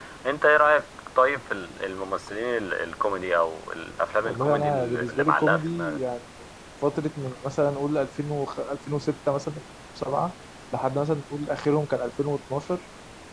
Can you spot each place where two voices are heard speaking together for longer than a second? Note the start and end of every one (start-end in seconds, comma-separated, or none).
4.2-6.0